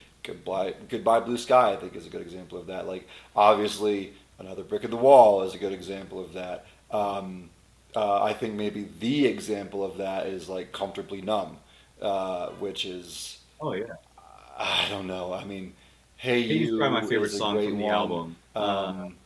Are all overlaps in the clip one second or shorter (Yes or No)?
No